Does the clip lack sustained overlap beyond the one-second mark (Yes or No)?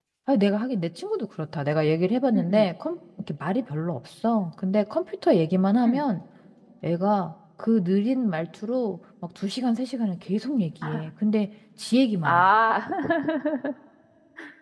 Yes